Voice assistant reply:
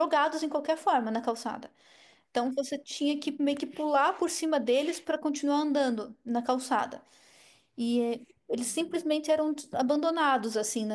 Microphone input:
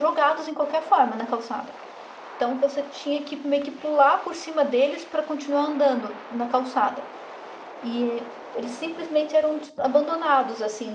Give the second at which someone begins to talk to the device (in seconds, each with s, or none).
none